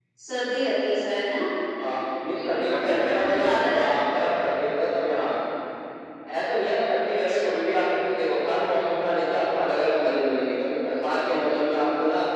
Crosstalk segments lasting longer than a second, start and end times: 2.4-3.8

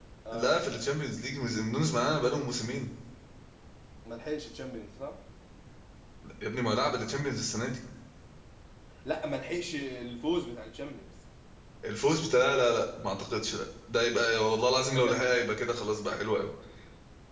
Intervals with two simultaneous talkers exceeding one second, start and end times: none

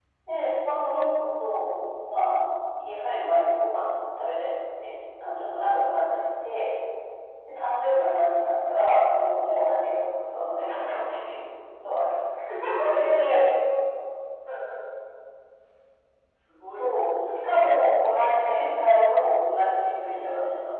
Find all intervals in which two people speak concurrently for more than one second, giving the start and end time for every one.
16.8-18.3

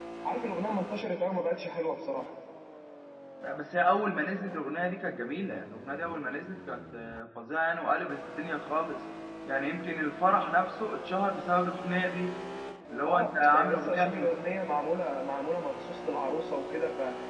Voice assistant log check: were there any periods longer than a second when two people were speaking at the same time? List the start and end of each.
13.0-14.3

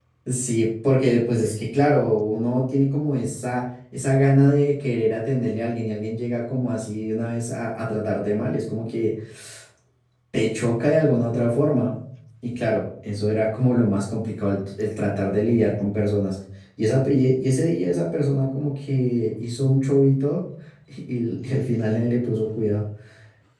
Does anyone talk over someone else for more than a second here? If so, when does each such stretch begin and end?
none

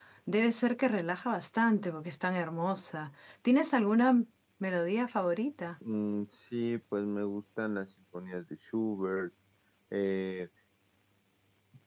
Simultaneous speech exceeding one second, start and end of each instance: none

